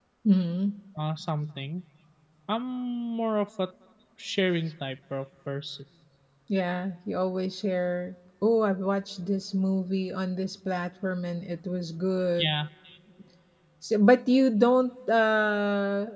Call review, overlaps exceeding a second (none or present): none